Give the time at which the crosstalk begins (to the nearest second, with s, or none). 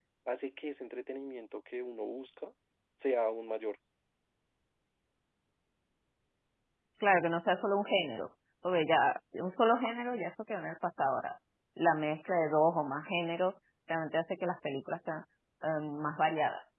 none